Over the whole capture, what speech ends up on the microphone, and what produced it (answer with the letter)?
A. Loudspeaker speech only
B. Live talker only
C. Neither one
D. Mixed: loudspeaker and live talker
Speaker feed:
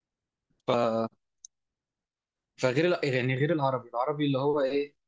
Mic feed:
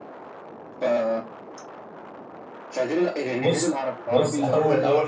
D